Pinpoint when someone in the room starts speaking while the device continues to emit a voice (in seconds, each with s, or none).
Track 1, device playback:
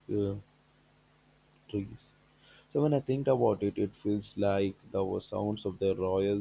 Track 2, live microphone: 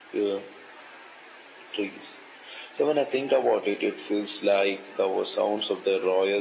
none